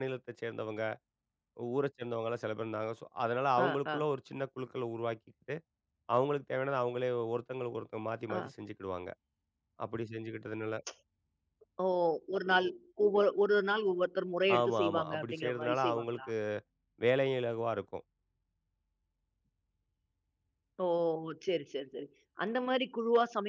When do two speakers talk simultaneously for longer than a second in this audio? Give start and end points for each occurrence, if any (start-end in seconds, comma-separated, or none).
14.6-16.3